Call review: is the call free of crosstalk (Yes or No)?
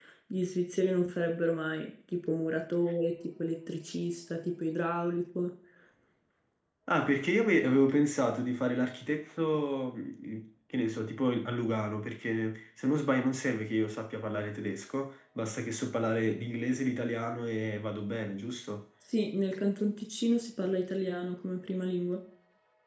Yes